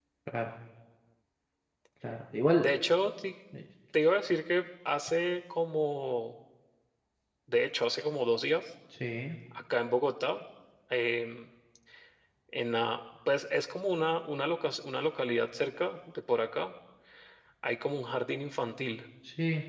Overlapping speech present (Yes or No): No